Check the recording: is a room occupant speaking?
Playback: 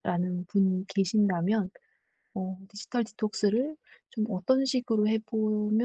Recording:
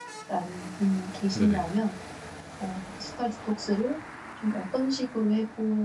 Yes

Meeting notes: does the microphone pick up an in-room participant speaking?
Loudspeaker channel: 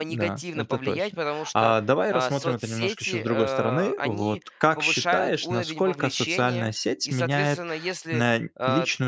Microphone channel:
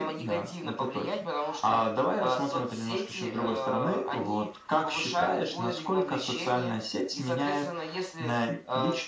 No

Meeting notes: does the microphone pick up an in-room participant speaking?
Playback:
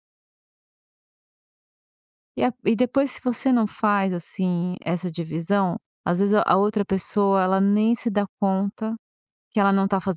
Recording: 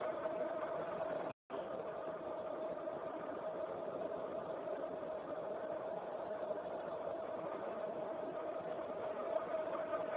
No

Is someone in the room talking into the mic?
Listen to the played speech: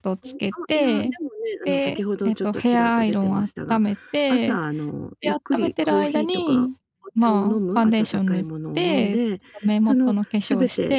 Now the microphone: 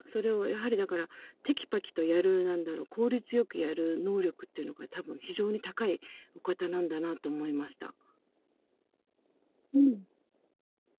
Yes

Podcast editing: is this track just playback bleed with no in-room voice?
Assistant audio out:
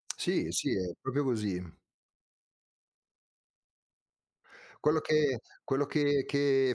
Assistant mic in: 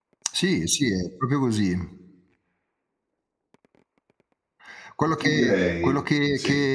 No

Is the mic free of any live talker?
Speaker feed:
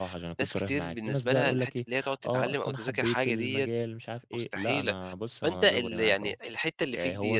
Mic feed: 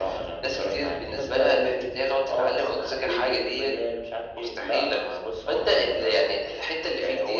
Yes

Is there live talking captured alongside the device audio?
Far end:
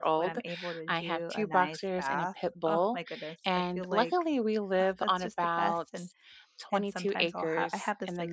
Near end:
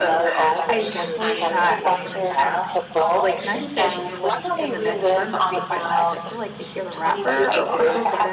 Yes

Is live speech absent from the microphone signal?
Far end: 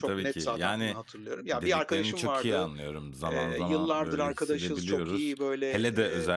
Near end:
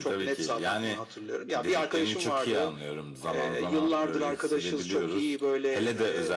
Yes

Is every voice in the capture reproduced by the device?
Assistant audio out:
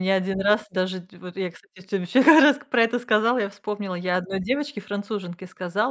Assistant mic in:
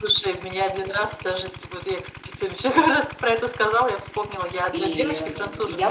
No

